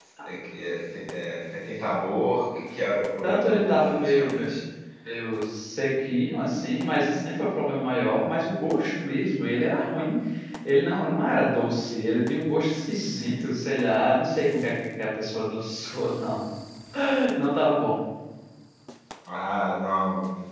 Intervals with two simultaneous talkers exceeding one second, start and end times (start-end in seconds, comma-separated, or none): 3.2-4.5